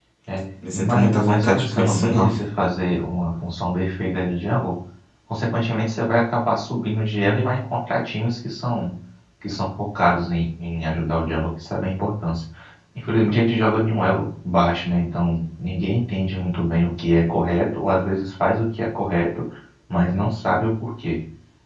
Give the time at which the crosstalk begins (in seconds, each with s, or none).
0.7 s